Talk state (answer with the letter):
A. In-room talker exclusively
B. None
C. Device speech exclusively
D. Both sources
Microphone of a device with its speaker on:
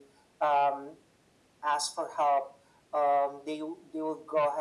C